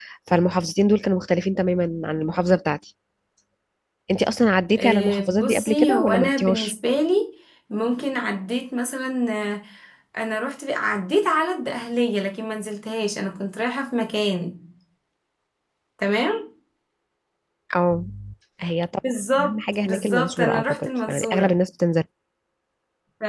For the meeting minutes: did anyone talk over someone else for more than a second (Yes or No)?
Yes